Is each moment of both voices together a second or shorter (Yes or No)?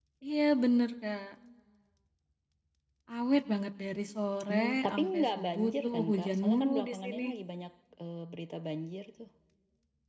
No